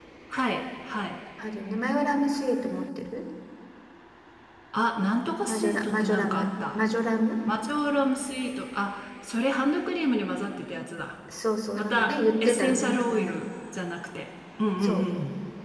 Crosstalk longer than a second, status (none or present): present